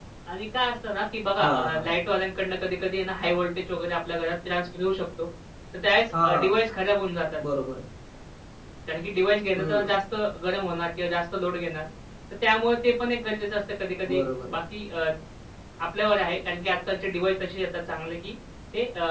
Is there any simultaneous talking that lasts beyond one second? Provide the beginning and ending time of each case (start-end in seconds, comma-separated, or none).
none